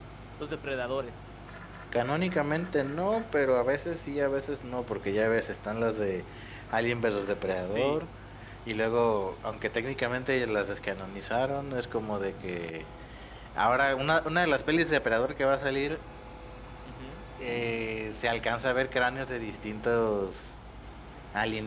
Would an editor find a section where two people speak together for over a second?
No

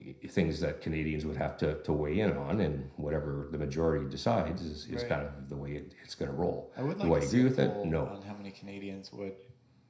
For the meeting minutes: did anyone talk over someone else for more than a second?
Yes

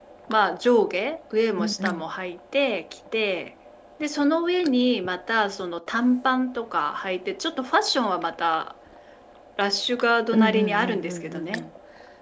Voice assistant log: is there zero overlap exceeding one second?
No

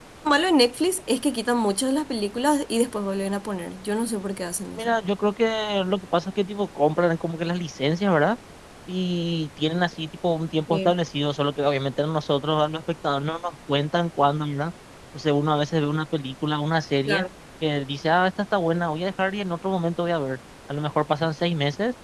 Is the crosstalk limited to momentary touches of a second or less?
Yes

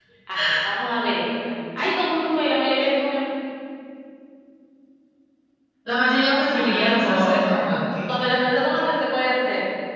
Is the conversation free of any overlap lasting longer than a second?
No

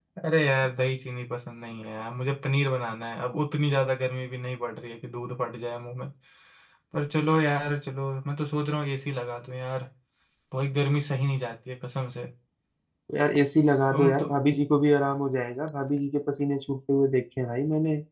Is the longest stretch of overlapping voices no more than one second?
Yes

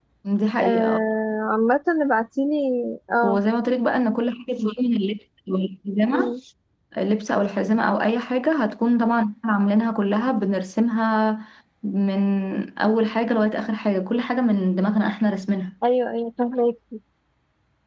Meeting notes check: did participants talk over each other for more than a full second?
No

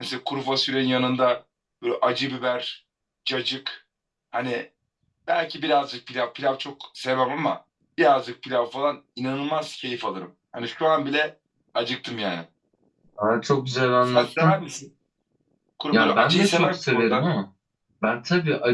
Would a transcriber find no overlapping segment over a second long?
No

